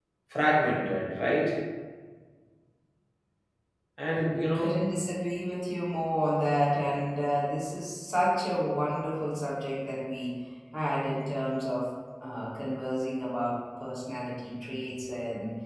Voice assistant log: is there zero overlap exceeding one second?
Yes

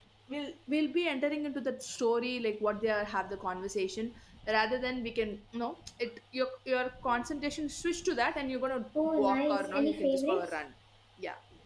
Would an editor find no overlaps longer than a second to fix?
No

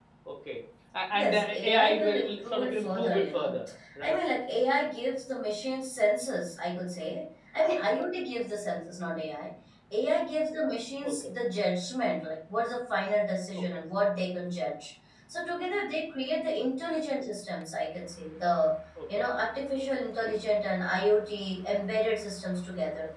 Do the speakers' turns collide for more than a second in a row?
Yes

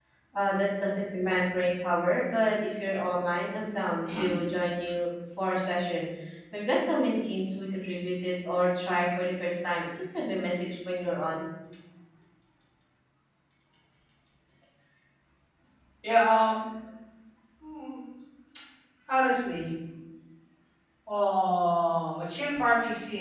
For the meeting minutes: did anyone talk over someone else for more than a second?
No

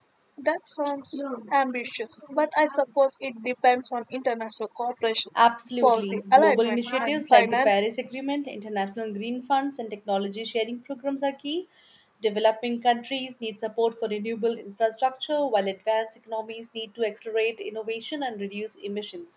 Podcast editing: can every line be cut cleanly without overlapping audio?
No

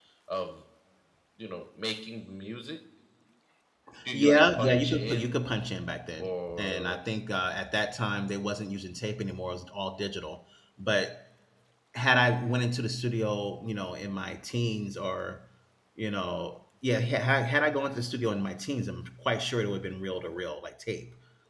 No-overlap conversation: No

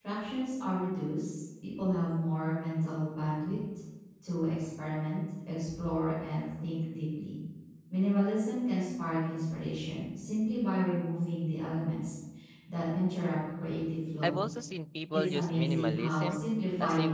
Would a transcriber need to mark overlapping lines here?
Yes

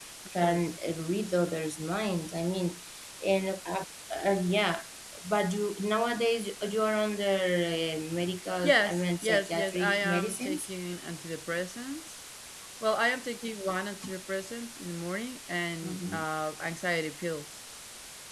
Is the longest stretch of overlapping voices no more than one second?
No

